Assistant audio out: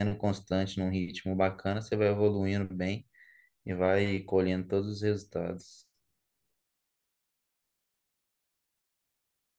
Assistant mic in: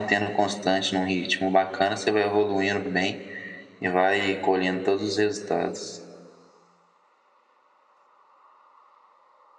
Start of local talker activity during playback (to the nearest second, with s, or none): none